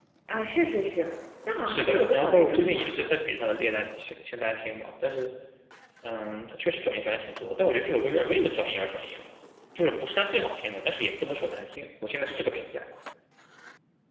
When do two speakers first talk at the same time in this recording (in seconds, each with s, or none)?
1.6 s